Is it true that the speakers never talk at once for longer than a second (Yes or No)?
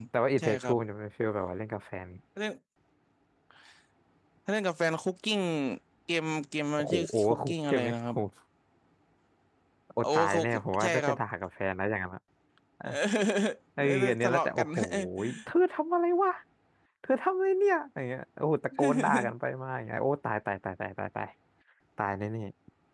No